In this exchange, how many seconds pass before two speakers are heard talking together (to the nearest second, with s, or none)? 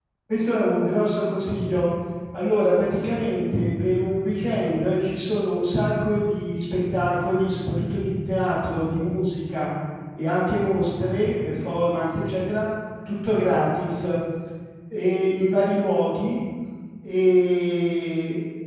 none